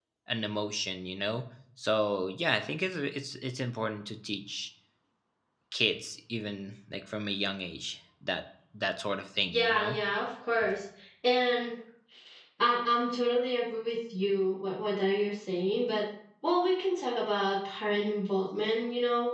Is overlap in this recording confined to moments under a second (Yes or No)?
Yes